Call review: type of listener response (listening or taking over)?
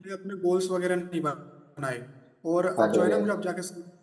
listening